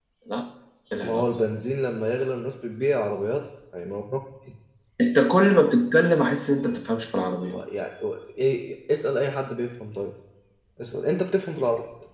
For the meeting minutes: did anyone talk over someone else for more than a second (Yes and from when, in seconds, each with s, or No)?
No